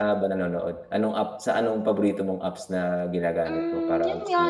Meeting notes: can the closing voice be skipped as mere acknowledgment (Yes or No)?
No